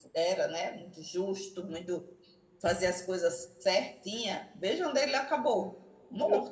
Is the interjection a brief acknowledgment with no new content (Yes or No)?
No